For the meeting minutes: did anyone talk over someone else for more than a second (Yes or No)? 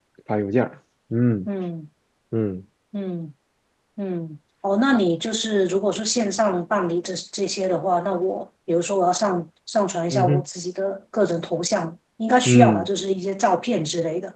No